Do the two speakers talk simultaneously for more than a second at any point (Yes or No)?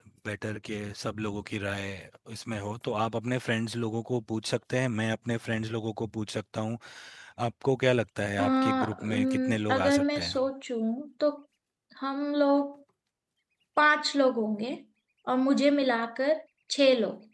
Yes